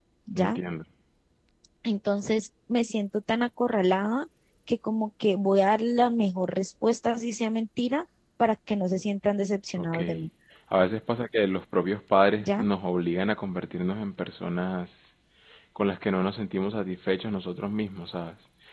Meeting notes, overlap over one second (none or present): none